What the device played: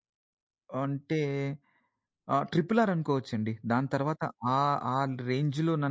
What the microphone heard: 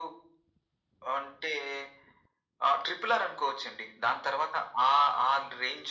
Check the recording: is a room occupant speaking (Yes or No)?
No